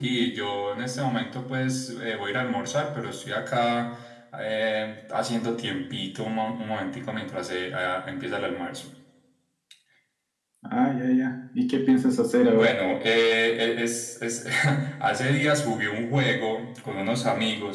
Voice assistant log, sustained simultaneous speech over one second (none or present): none